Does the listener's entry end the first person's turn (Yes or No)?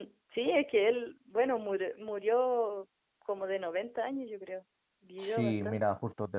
Yes